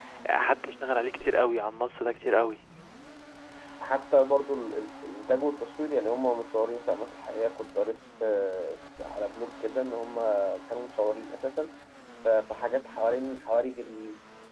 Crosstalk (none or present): none